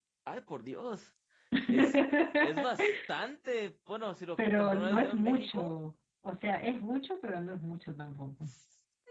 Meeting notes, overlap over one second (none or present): present